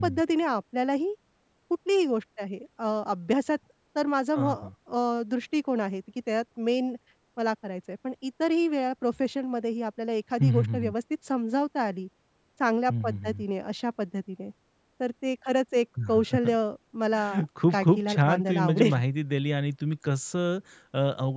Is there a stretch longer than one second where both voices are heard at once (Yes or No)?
Yes